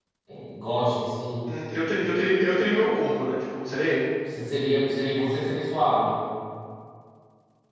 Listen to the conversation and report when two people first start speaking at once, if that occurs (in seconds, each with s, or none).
none